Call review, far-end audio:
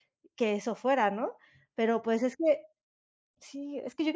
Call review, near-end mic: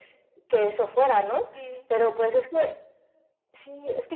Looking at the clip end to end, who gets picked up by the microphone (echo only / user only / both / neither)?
both